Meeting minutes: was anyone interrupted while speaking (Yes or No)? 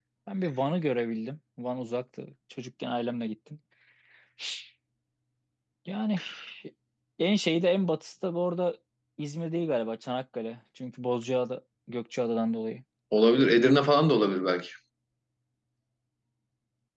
No